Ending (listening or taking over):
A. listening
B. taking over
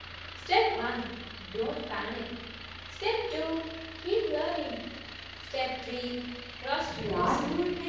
B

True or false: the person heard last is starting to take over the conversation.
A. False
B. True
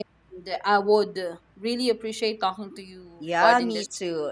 B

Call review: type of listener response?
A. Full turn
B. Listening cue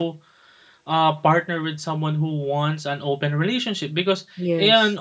B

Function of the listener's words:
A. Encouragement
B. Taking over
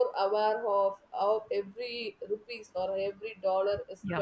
A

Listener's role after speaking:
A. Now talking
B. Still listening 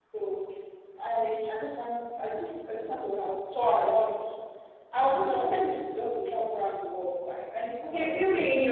A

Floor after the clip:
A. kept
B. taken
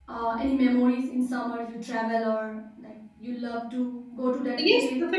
B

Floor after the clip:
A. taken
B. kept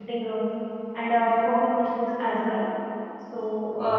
B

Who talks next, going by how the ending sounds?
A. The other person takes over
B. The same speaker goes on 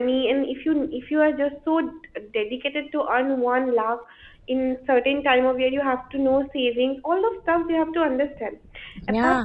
B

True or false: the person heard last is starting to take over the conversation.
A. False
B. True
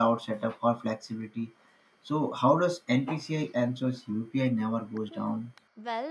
B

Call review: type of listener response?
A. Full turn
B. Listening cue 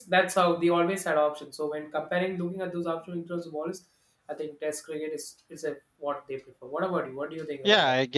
A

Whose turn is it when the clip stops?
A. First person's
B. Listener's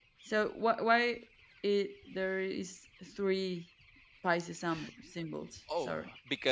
B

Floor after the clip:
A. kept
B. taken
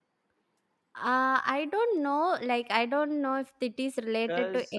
A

